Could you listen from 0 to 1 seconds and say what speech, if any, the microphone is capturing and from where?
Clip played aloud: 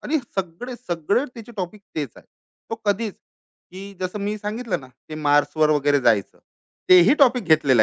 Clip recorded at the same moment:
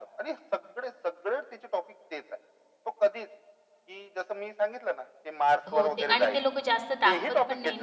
echo only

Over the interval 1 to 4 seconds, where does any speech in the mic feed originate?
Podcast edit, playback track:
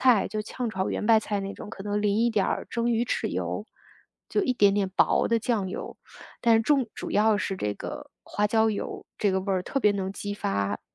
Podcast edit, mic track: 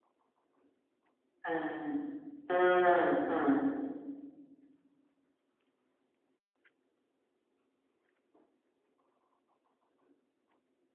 user only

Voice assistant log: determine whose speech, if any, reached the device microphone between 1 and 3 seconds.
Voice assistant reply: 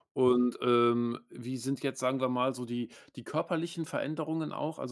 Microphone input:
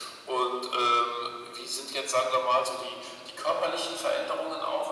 echo only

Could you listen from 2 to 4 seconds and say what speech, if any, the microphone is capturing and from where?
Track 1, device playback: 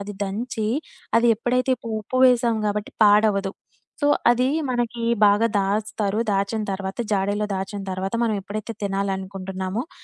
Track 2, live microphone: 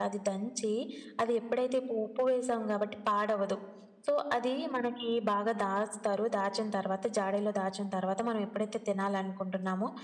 echo only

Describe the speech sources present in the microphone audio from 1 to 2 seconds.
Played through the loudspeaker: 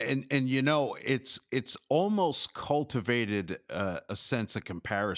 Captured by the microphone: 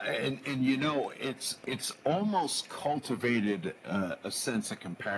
echo only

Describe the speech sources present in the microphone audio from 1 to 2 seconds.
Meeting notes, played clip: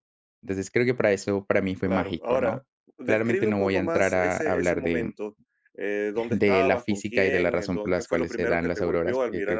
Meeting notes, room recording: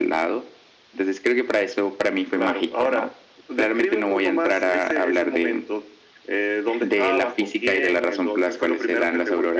echo only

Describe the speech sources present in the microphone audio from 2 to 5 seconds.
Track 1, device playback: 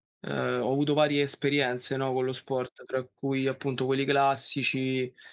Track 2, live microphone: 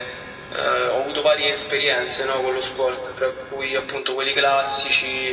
echo only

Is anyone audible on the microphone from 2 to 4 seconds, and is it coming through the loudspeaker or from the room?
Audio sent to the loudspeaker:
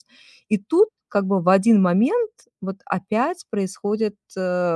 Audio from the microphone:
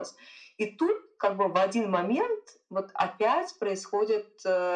echo only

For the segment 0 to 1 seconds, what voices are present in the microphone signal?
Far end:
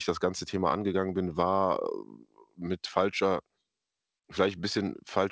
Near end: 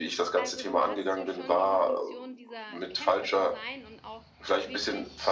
both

